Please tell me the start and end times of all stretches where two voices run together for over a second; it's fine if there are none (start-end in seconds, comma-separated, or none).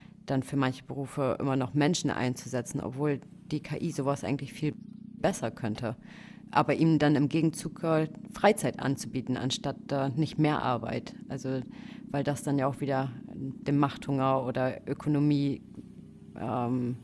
none